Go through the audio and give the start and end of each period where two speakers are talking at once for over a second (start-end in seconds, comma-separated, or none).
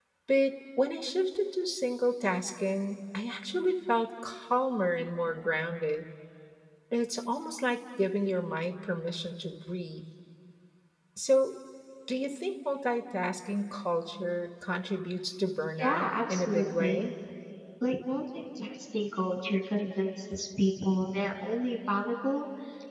15.8-17.0